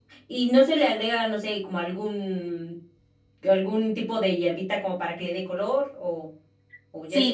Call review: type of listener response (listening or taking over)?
taking over